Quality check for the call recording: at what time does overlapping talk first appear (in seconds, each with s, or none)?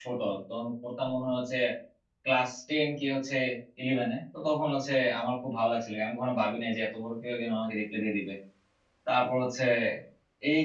none